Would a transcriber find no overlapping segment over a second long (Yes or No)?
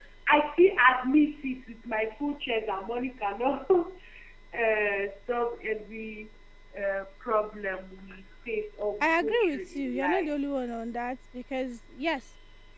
No